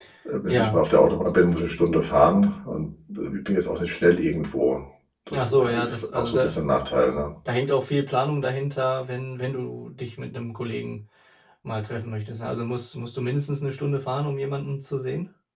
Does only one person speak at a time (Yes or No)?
No